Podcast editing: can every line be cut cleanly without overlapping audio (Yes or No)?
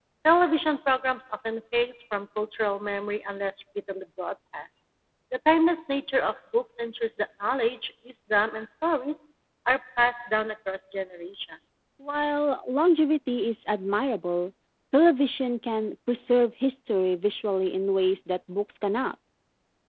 Yes